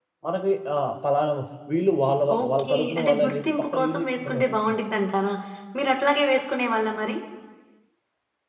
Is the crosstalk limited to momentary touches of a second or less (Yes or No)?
No